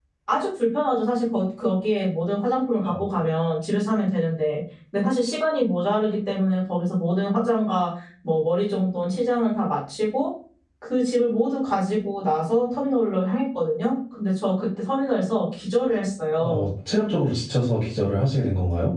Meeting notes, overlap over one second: none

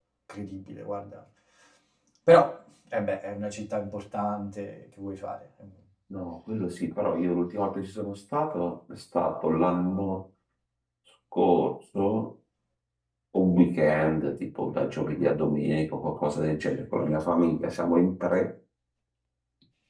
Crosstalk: none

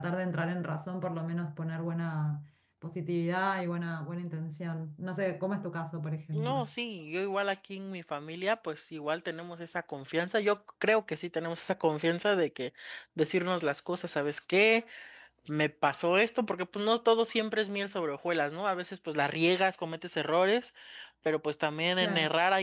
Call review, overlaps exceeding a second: none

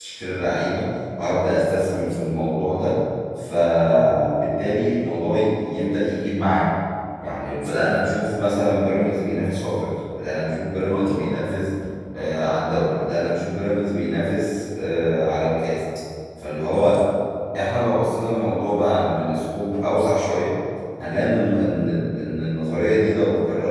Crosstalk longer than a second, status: none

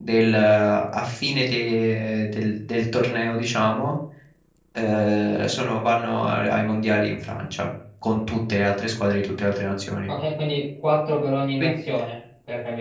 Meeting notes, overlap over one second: none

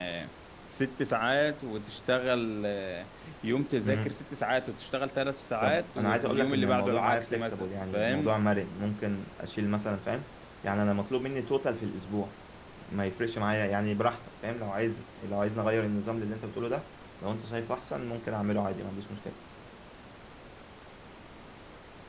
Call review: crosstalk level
present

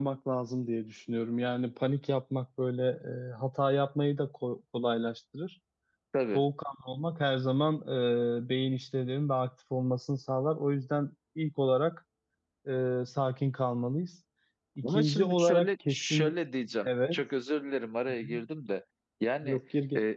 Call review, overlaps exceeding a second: present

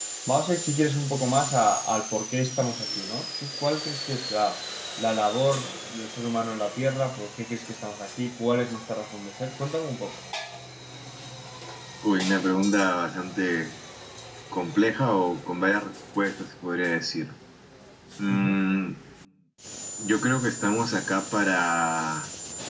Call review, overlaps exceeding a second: none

